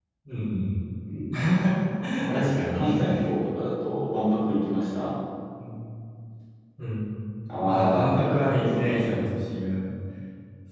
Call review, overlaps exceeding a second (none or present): present